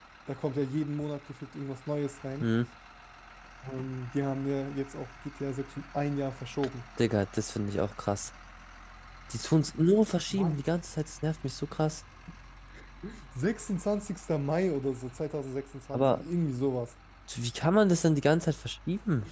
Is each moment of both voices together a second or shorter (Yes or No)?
Yes